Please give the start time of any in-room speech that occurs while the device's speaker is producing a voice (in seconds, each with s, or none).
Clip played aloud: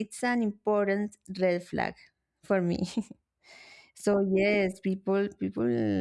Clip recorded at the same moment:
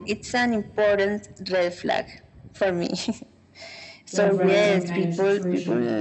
4.1 s